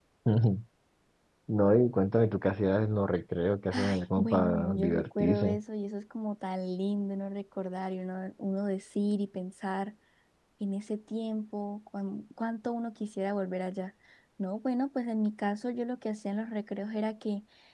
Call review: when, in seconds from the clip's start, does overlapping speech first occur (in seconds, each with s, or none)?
3.7 s